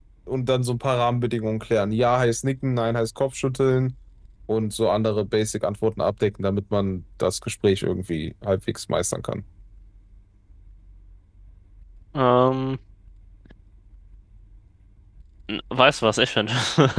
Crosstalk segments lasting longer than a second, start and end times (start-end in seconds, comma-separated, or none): none